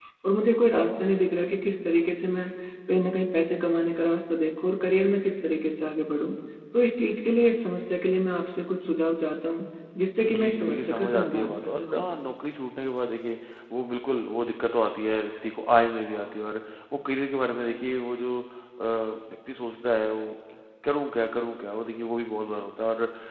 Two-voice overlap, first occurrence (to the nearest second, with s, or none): 10 s